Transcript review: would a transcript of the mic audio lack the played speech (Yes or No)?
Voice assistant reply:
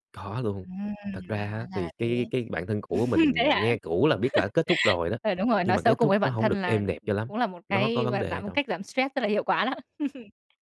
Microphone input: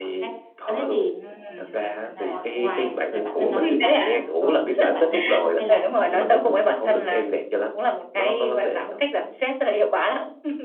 No